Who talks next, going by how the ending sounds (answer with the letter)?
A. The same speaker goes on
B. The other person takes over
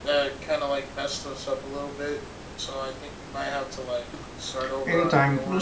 B